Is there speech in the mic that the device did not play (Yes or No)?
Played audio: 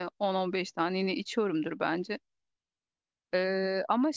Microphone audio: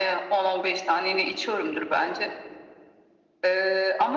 No